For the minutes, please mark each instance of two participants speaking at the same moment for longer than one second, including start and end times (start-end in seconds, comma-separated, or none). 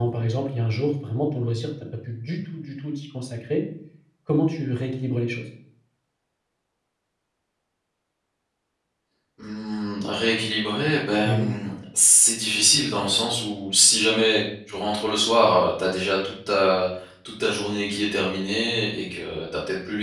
none